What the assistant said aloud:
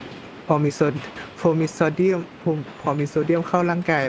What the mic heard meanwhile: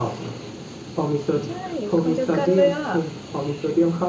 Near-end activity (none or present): present